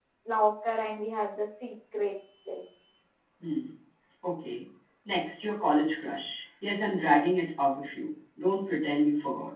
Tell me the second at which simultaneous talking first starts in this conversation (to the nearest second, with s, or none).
none